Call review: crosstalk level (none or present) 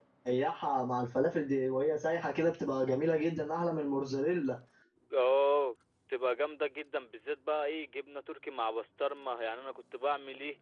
none